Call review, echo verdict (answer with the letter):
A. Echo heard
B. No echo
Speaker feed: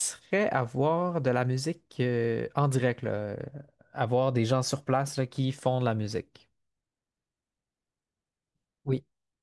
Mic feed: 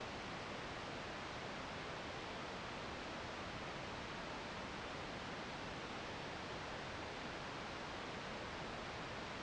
B